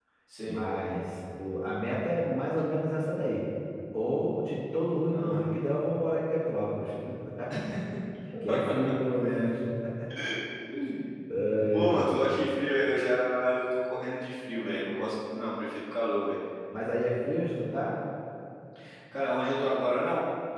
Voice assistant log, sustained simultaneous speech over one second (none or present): none